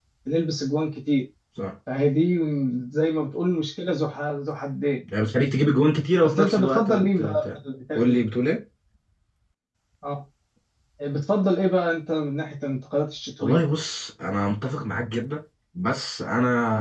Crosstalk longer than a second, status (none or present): present